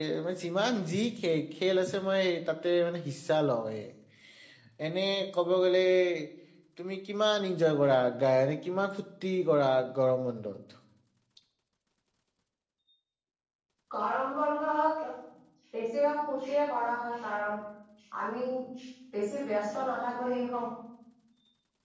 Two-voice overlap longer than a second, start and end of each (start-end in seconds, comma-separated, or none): none